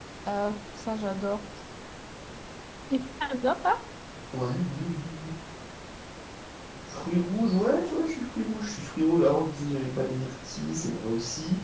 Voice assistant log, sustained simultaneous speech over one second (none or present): none